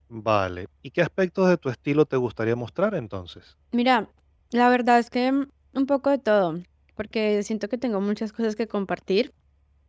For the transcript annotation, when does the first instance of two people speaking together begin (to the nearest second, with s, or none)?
none